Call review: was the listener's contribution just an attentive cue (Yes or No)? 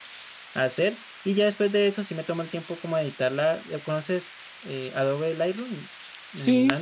No